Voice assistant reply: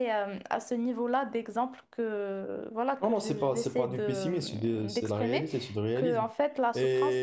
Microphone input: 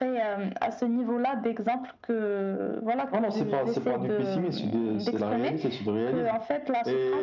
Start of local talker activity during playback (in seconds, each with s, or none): none